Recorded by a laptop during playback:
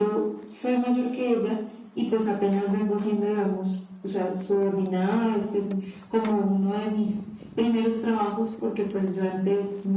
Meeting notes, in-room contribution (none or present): none